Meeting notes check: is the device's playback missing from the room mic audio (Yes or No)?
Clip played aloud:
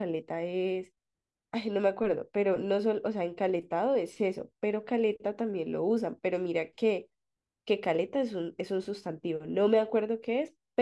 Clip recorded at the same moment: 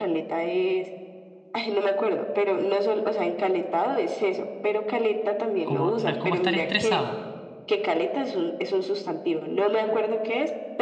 No